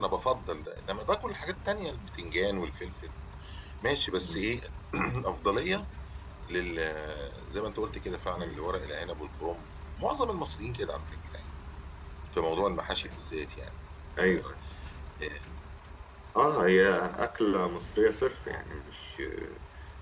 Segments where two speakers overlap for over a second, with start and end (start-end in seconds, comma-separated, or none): none